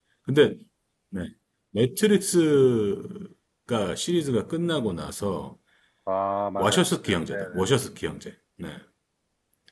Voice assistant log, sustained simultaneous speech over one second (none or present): present